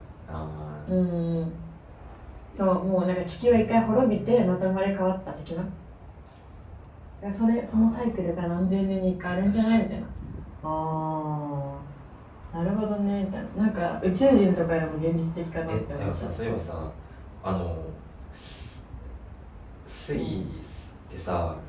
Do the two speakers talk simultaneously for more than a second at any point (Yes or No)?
Yes